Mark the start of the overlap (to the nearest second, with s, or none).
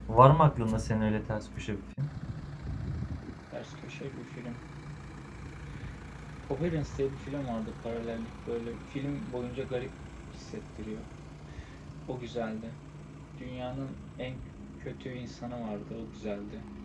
none